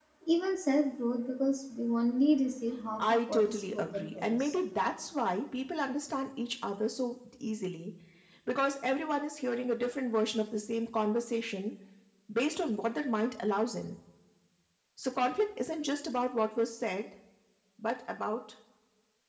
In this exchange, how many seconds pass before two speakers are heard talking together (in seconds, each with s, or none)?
3.0 s